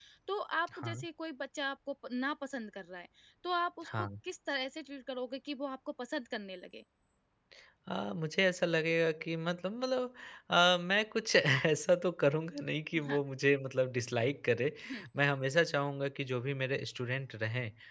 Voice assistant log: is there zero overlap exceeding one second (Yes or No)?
Yes